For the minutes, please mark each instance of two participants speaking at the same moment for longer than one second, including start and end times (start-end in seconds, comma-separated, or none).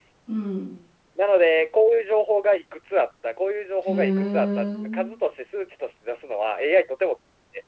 3.9-5.1